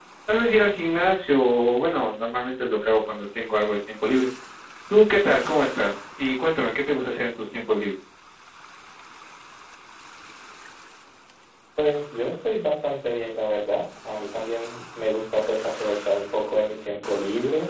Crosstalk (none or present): none